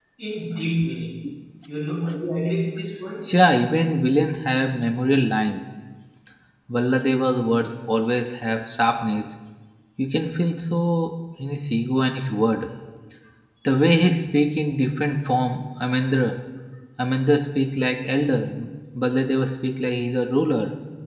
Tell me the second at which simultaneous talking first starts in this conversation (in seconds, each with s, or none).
none